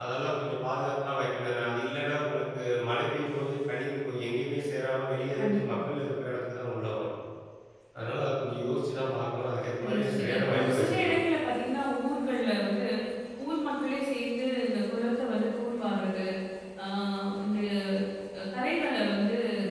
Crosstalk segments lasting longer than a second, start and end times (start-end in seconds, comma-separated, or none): 9.8-11.1